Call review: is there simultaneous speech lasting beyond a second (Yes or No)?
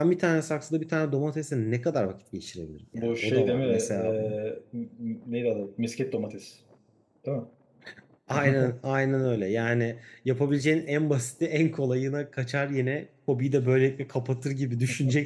Yes